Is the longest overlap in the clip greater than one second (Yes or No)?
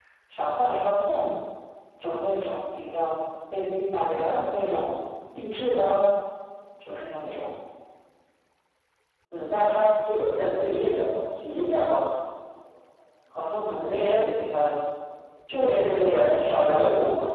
Yes